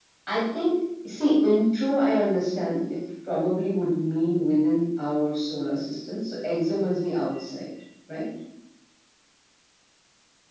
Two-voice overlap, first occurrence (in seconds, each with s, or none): none